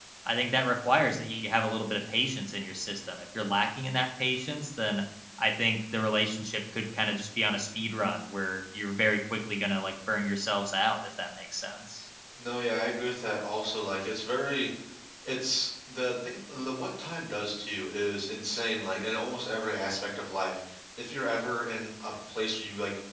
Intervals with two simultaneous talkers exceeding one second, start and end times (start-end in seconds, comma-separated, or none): none